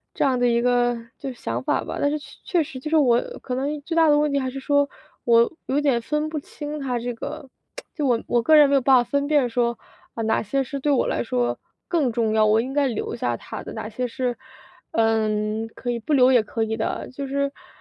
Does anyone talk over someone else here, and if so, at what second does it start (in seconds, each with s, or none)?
none